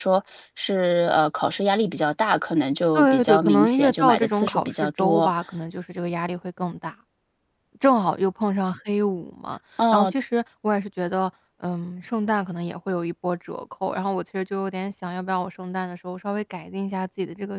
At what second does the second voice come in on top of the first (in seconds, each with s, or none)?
2.9 s